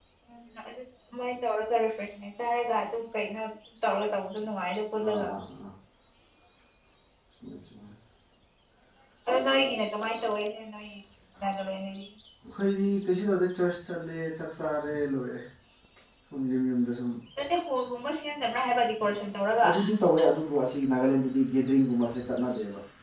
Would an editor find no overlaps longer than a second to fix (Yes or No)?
Yes